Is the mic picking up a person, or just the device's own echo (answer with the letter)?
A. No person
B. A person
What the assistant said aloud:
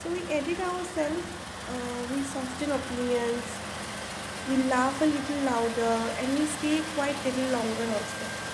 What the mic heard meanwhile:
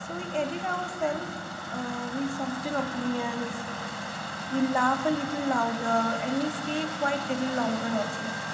A